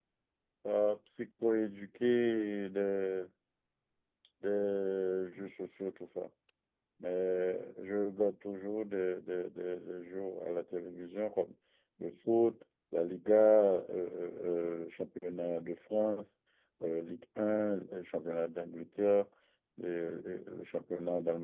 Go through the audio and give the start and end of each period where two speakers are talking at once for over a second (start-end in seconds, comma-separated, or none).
none